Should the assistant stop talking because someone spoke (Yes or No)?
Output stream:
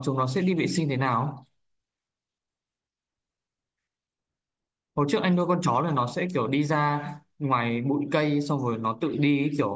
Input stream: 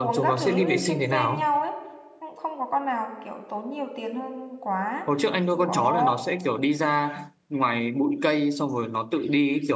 Yes